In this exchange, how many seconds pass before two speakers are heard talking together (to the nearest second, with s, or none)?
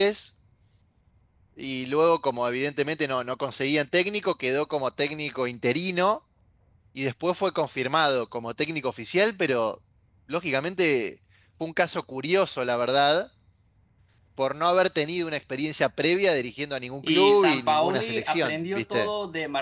17 s